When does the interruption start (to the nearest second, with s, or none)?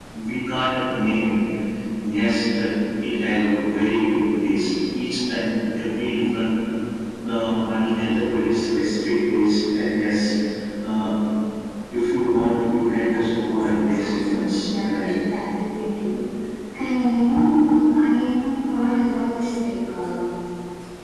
13 s